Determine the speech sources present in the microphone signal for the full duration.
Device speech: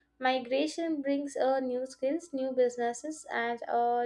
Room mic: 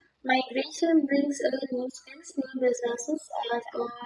echo only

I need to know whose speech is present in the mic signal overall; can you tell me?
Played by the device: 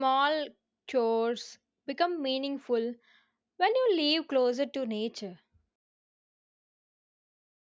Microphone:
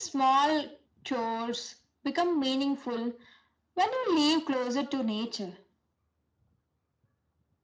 echo only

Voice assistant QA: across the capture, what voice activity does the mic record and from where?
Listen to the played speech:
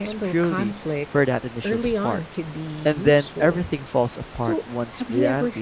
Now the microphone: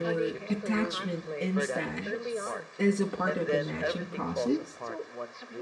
both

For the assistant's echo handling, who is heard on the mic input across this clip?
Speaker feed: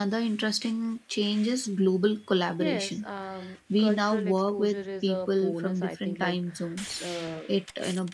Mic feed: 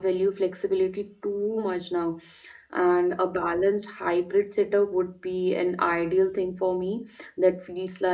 user only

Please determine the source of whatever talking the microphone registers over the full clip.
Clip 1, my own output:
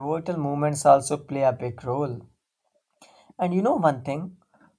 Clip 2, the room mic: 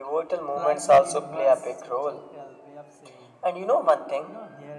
both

